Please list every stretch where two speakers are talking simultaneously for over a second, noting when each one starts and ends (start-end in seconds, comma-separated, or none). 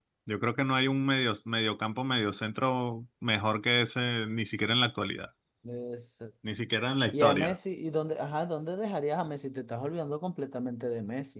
none